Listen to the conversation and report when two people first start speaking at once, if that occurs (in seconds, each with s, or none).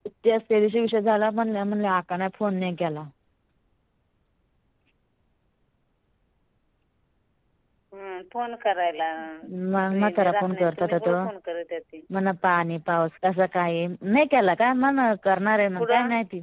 9.9 s